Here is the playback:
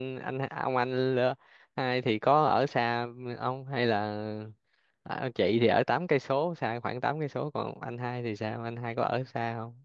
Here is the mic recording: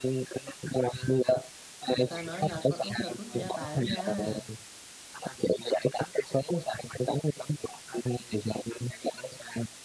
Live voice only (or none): Người ta nói là con út là trút gia tài đó nha.